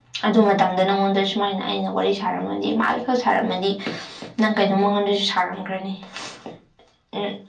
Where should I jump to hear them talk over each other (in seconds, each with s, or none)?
none